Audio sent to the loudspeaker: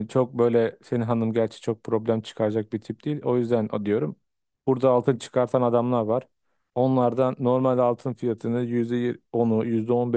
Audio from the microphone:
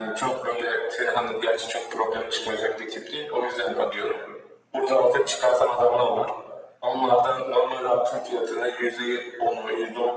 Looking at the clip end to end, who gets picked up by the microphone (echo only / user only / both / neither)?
echo only